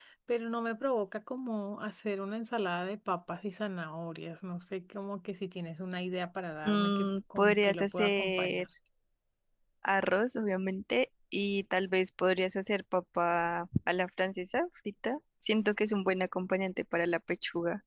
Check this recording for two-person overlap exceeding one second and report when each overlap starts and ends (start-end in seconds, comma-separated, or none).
6.6-8.7